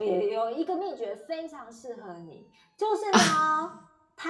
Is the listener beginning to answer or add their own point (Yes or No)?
No